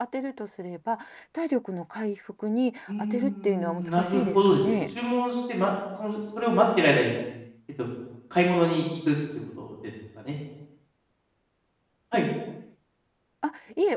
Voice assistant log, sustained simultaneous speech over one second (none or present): present